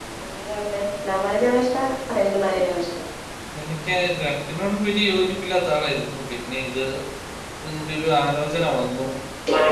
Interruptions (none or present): none